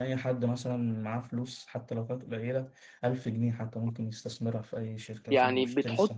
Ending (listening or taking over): taking over